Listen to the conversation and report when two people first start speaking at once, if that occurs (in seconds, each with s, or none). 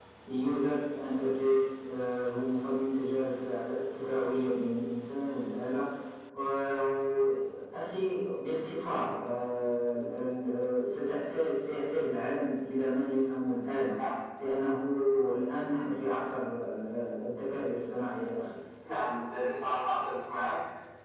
none